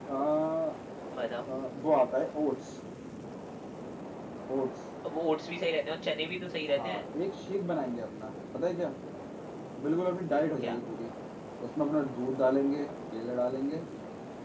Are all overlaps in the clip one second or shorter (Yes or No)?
Yes